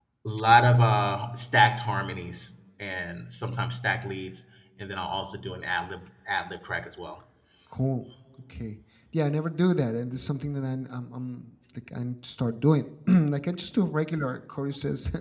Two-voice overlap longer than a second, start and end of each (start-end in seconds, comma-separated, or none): none